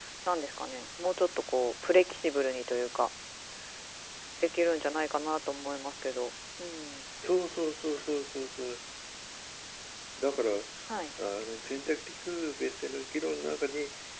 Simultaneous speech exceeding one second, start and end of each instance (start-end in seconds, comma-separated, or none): none